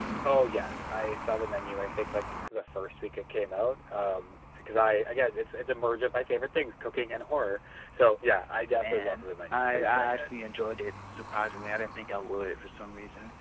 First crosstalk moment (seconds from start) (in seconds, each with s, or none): 8.7 s